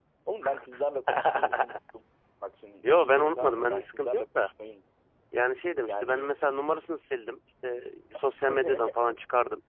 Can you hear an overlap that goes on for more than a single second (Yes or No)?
Yes